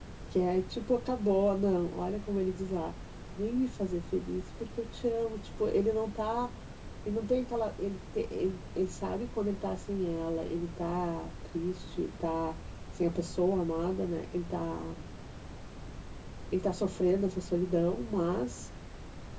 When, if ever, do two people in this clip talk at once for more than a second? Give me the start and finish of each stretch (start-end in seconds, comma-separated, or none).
none